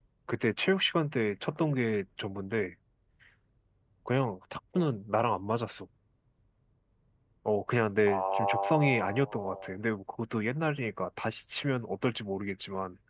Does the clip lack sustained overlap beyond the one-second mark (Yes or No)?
No